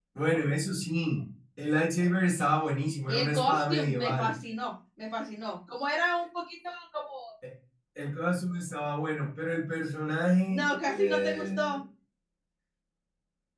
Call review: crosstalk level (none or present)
present